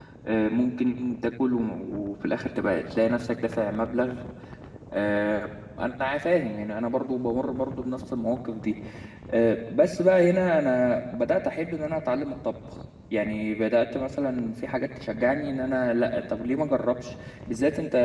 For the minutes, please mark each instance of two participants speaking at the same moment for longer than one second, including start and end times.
none

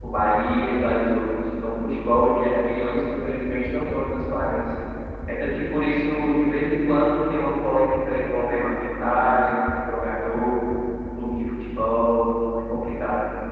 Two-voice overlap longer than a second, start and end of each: none

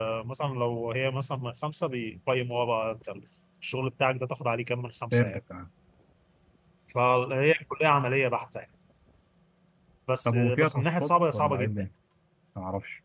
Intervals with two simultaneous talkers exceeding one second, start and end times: 10.2-11.9

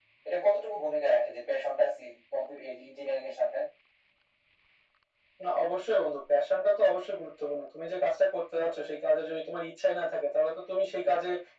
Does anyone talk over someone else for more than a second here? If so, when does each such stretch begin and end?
none

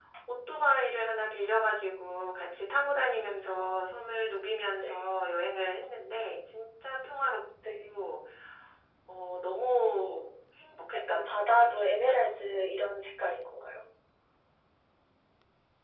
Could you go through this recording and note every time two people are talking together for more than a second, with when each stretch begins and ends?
11.1-12.4

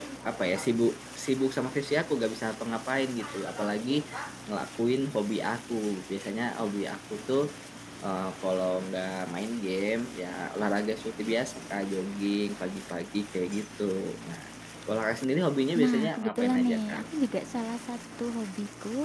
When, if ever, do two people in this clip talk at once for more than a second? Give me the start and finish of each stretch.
15.8-17.0

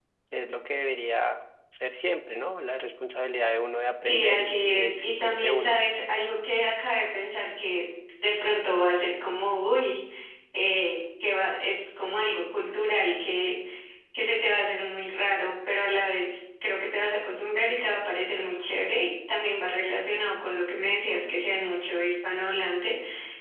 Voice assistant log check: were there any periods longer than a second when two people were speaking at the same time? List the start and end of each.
4.0-5.8

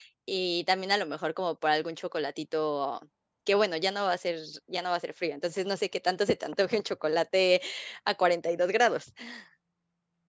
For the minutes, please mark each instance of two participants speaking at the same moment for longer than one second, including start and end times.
none

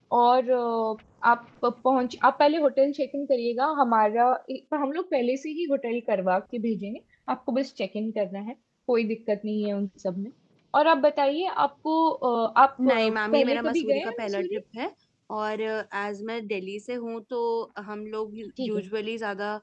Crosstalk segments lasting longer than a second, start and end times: 12.8-14.6

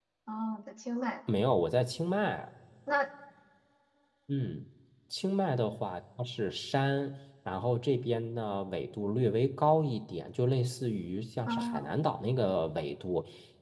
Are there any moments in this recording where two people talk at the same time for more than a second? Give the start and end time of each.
none

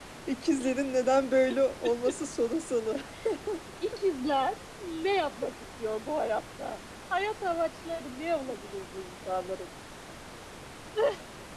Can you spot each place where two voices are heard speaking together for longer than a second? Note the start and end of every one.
none

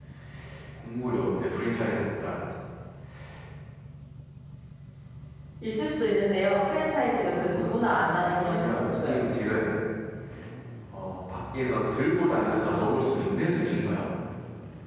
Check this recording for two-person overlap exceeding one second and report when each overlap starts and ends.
7.0-9.2

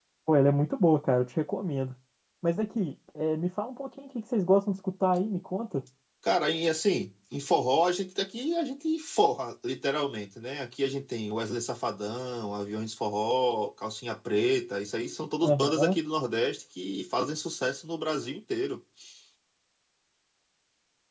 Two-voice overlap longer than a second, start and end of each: none

